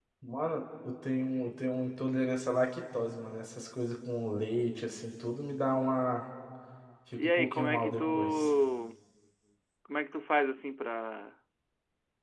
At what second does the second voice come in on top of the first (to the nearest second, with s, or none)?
7 s